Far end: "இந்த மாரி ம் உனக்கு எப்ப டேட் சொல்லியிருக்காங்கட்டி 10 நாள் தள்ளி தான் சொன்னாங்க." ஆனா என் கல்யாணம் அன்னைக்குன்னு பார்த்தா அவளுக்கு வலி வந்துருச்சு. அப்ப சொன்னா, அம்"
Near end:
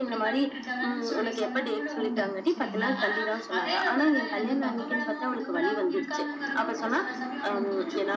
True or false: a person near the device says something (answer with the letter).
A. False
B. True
B